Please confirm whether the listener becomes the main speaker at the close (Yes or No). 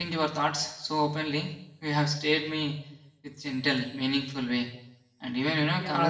Yes